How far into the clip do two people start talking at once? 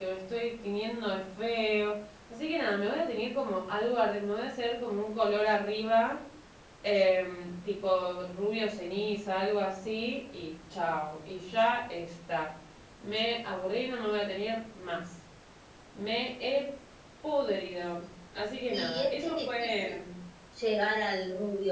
18.7 s

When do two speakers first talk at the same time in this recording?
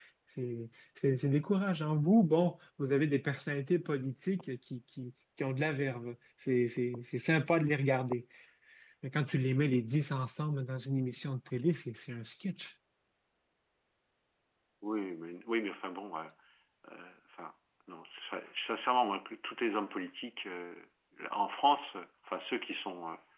none

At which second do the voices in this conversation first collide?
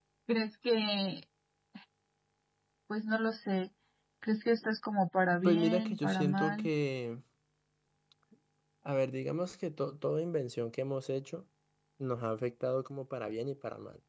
5.4 s

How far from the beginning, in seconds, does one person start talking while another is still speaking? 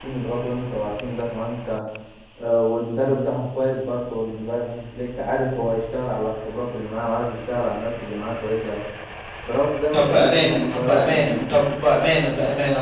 9.9 s

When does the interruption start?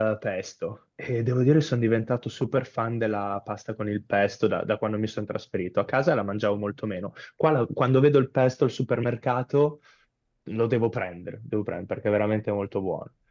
none

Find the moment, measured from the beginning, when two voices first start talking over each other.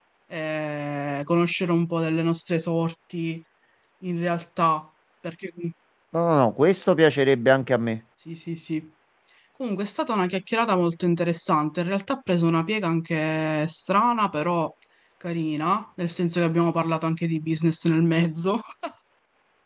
none

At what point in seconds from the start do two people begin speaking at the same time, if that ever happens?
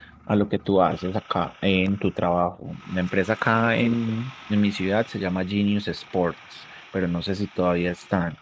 none

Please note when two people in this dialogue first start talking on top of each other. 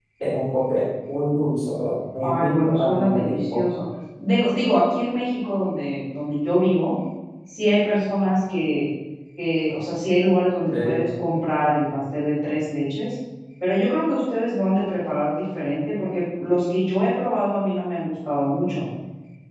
2.2 s

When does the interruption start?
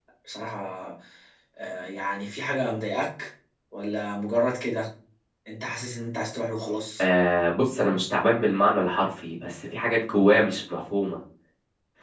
none

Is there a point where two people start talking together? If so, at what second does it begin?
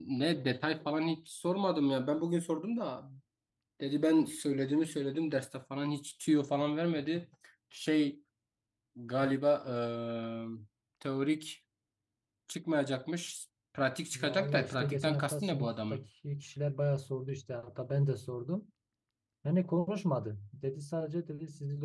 14.1 s

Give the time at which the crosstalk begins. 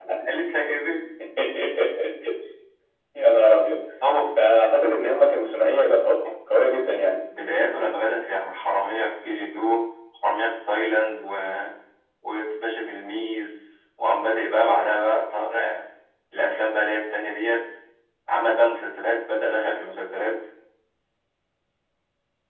none

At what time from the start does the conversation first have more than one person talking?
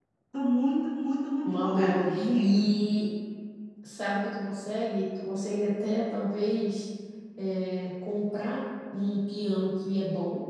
1.4 s

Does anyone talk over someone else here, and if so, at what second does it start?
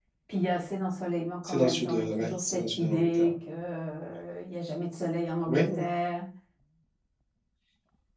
1.4 s

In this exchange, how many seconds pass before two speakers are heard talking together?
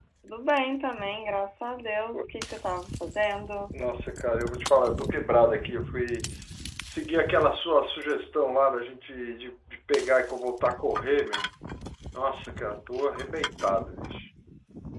none

